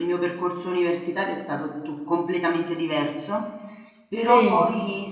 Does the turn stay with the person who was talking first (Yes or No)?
Yes